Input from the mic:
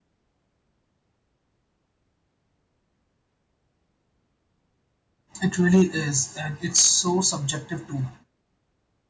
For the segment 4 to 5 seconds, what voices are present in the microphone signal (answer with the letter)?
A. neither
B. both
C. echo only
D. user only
A